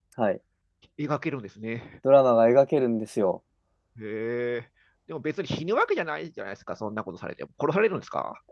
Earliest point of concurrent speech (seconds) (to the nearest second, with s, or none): none